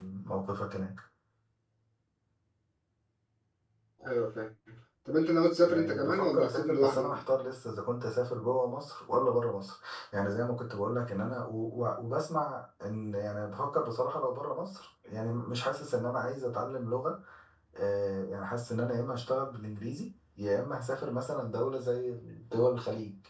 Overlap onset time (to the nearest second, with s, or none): 6 s